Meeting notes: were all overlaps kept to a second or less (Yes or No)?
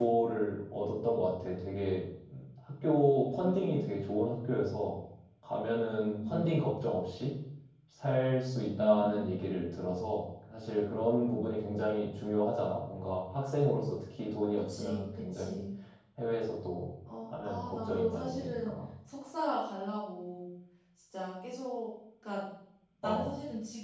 No